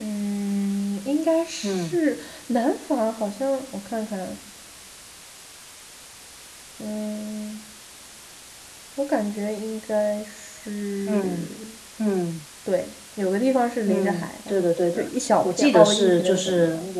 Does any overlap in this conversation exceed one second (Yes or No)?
Yes